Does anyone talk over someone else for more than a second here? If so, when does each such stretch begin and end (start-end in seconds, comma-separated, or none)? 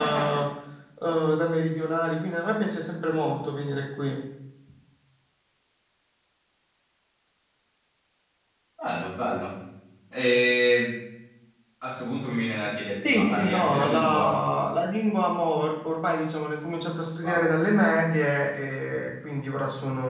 13.0-14.4